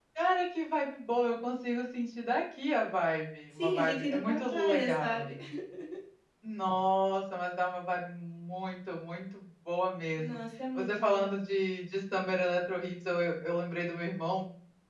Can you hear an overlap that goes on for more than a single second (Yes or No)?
Yes